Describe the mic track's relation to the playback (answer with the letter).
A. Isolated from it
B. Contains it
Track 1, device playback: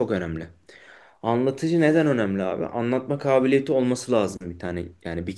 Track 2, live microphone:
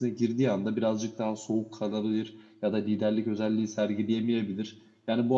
A